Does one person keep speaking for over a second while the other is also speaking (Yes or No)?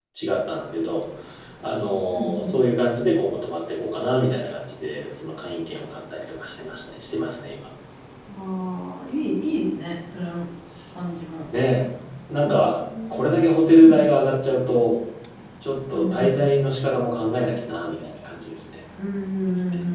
No